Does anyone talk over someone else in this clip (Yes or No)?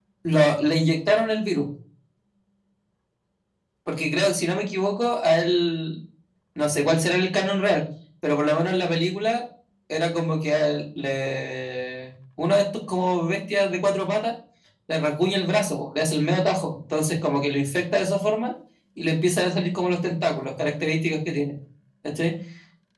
No